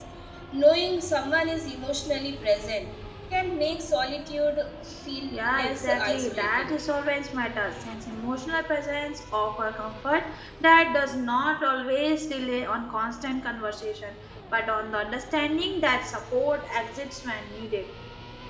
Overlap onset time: 5 s

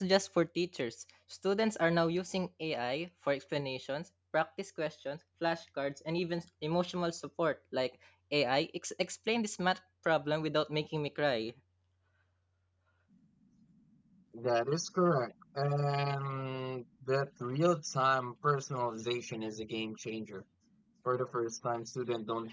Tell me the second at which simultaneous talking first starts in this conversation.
none

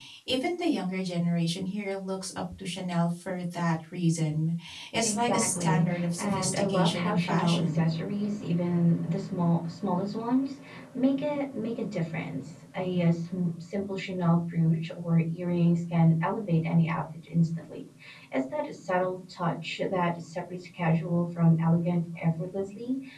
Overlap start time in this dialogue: 5 s

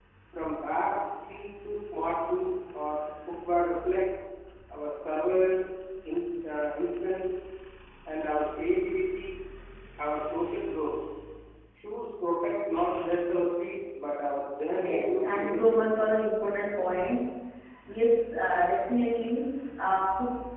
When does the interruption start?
15 s

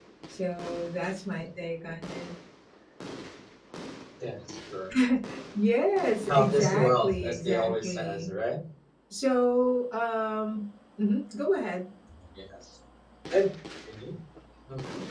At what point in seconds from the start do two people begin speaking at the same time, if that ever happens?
6 s

